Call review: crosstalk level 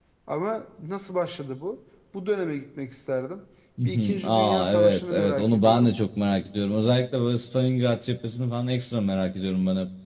present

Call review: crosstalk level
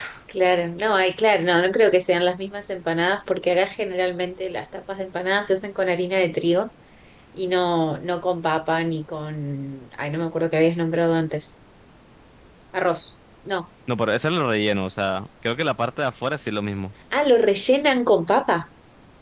none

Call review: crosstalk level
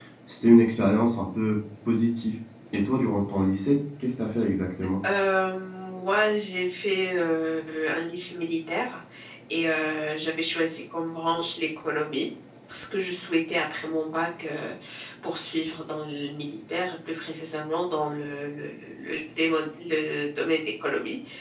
none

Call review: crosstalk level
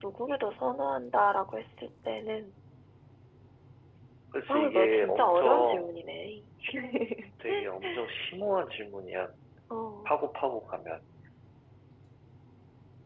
present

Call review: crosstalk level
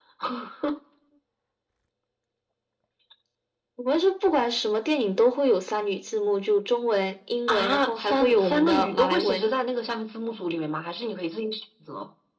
present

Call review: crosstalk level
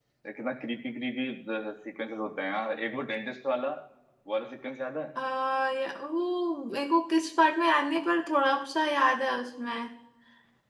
none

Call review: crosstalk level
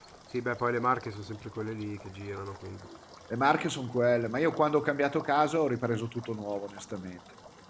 none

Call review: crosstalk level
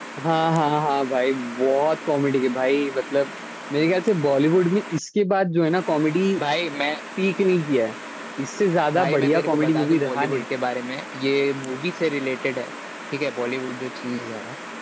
present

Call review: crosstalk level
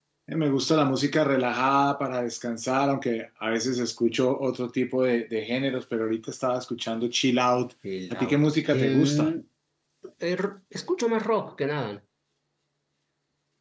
present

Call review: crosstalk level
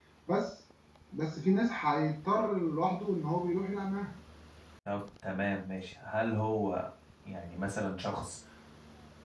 none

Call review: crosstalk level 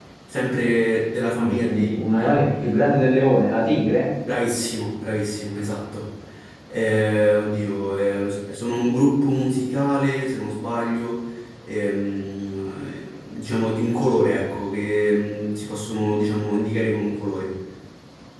present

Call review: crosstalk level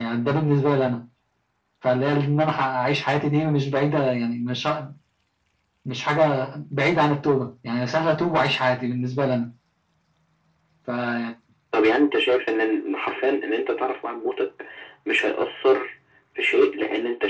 none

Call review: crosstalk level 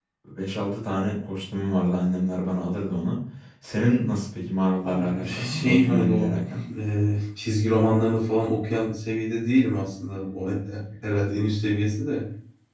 present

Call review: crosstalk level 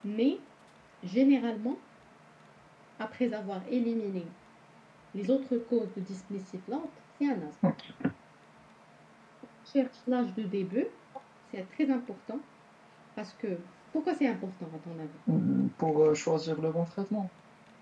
none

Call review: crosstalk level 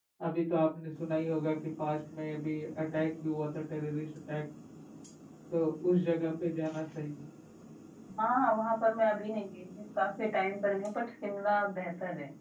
none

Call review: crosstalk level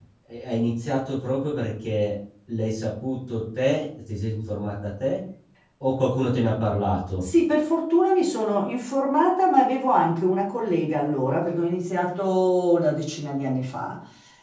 none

